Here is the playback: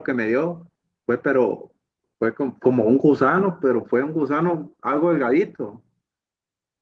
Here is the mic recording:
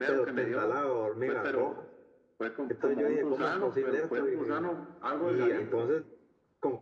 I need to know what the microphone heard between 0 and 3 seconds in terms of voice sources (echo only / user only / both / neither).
both